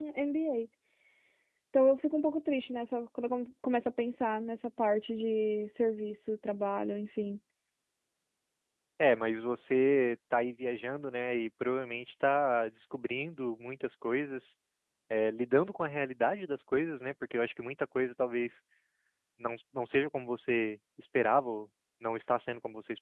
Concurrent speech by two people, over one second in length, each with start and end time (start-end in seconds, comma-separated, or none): none